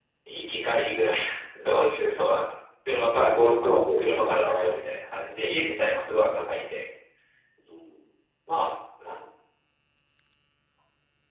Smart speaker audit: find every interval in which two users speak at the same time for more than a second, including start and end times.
3.1-4.7

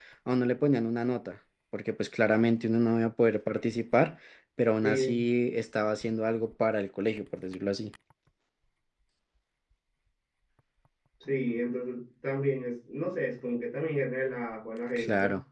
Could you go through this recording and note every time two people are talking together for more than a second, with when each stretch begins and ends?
none

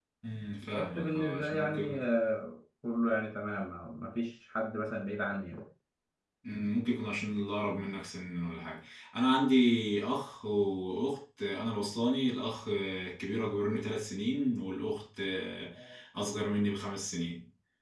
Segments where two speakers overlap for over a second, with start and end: 0.7-2.1

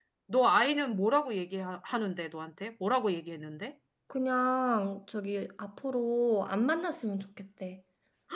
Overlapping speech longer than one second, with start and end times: none

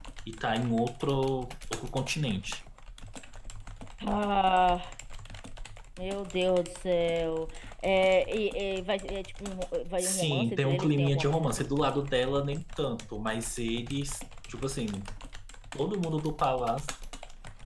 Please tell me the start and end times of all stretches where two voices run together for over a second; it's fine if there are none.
10.0-11.7

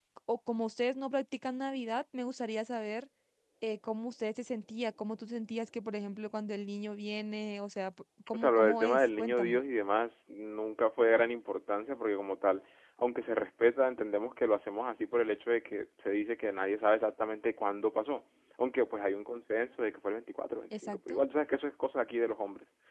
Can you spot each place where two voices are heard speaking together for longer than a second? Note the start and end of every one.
8.3-9.6

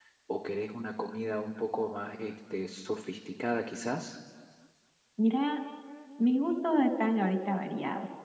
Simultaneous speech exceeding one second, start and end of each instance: none

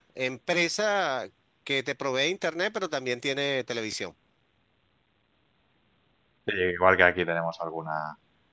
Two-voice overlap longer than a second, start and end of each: none

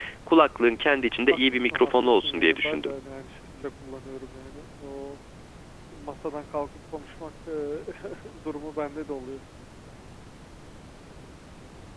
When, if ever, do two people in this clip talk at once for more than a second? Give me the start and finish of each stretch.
1.3-2.9

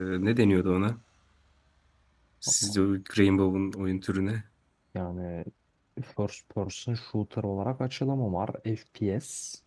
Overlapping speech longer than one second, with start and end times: none

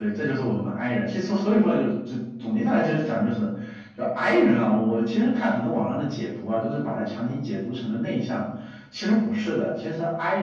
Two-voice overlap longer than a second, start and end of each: none

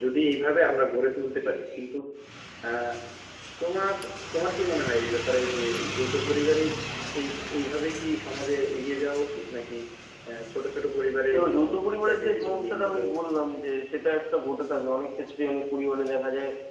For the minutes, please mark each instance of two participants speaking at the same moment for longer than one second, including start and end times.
11.3-13.2

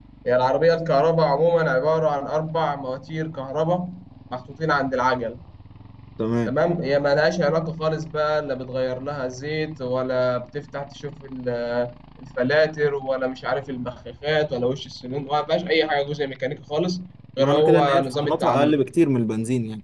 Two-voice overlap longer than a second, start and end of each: 17.4-18.8

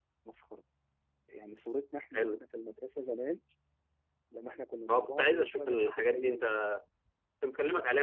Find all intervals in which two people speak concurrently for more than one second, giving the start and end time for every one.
4.9-6.4

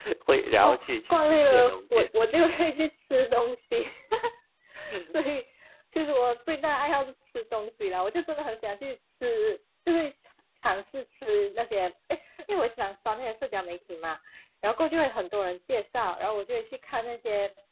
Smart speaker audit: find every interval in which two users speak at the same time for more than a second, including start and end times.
0.6-2.1

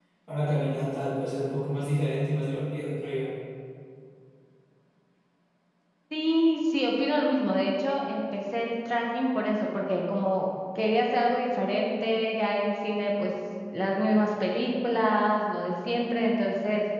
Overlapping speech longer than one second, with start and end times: none

